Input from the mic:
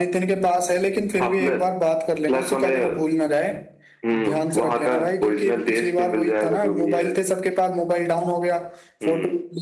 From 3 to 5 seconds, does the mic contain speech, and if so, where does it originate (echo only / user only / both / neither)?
echo only